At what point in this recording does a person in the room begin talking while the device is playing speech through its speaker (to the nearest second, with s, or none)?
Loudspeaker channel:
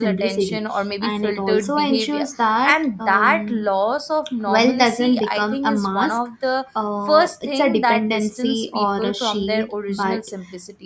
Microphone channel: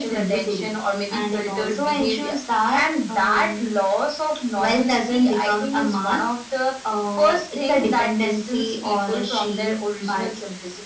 none